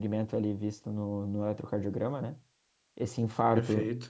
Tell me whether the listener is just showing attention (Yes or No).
Yes